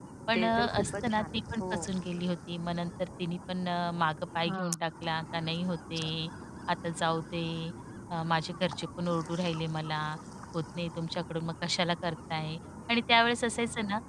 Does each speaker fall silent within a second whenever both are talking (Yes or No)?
No